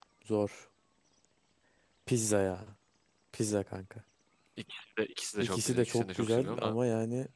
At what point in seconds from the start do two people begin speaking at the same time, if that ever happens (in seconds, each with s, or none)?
5.4 s